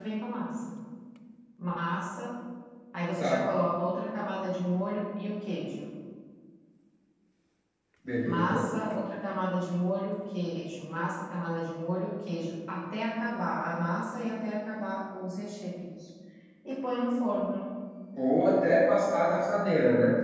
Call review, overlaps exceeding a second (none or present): none